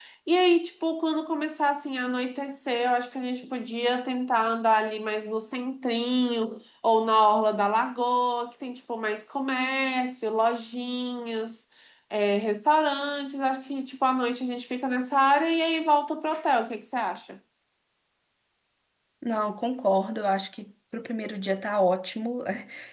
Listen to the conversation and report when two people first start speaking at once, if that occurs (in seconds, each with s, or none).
none